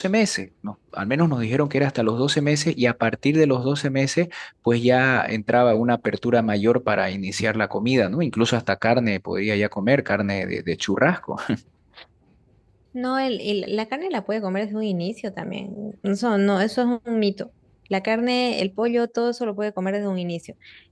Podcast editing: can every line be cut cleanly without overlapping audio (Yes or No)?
Yes